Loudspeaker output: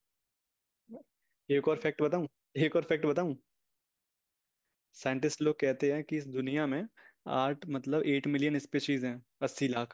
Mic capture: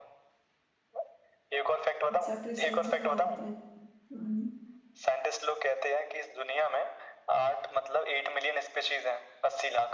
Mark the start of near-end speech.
2.1 s

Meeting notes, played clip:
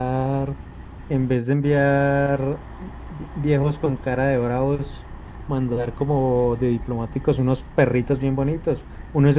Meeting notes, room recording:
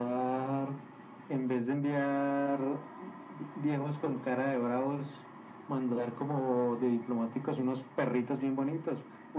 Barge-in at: none

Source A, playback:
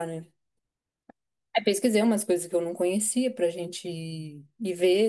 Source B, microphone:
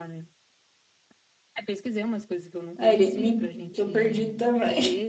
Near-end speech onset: 2.8 s

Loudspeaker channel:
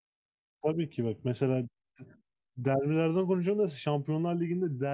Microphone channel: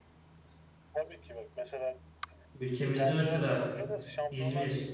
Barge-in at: 2.5 s

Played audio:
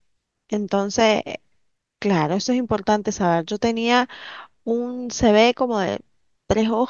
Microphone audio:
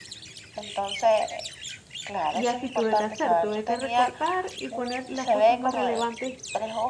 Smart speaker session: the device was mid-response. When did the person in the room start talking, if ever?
2.3 s

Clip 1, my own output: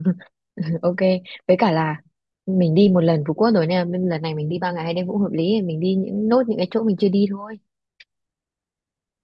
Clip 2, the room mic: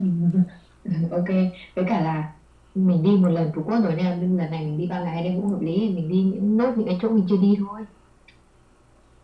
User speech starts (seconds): none

